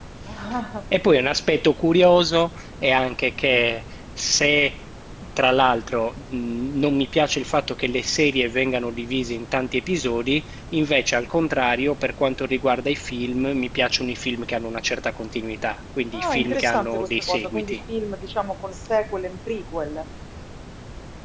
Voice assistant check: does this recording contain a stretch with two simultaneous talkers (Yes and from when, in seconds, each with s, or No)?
Yes, from 16.1 s